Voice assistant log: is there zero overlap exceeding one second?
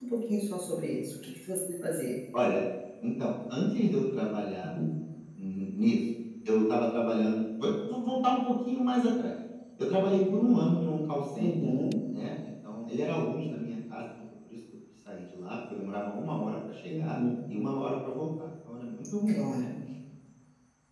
Yes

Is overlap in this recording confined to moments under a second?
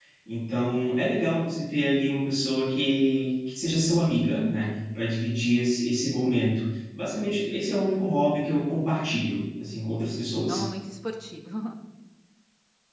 Yes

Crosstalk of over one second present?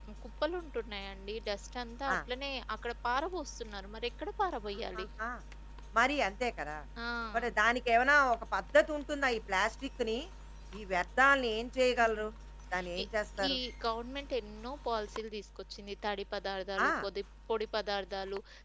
No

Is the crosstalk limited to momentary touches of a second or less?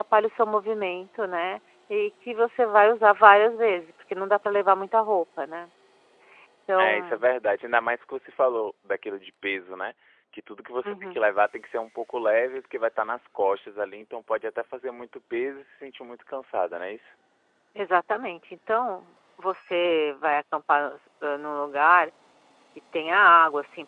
Yes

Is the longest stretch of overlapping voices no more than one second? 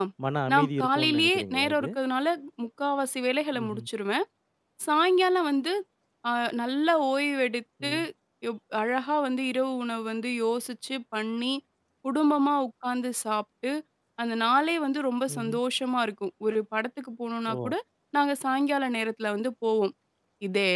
No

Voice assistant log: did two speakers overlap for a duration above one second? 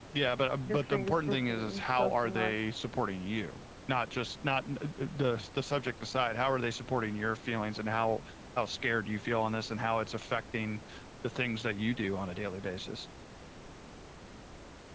Yes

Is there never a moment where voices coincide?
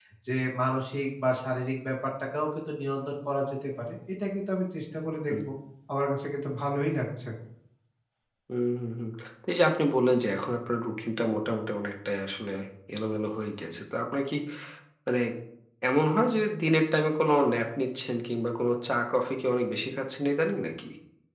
Yes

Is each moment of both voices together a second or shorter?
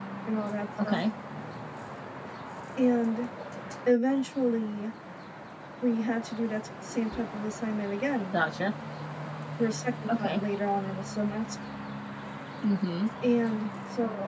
Yes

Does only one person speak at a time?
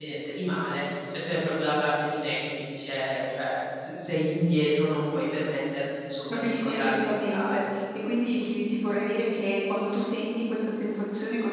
No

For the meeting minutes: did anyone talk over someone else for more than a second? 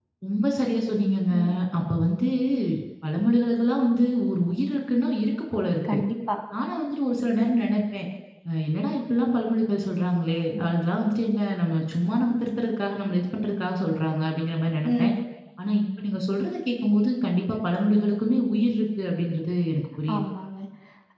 No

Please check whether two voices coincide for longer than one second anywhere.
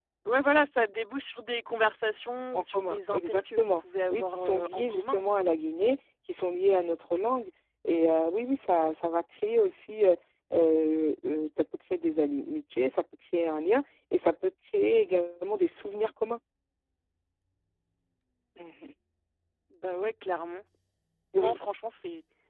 Yes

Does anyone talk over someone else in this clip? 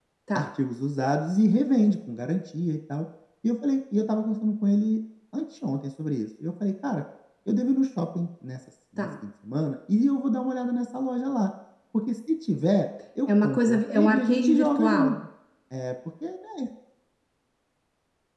Yes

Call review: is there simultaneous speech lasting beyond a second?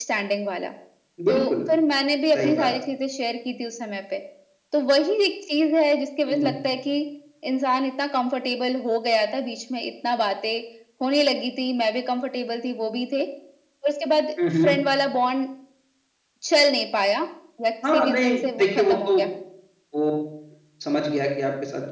Yes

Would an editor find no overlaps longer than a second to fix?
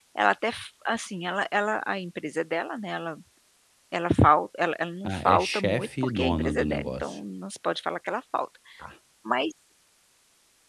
No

